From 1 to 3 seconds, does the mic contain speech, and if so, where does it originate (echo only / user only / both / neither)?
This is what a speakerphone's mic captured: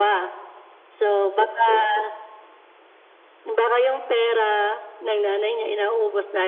echo only